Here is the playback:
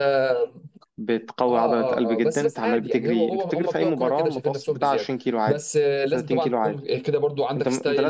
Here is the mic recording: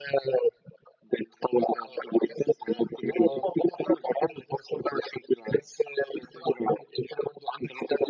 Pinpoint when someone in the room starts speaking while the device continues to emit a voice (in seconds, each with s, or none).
3.2 s